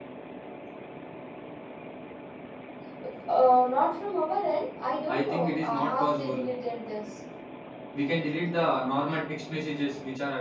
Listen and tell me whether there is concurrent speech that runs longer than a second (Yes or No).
Yes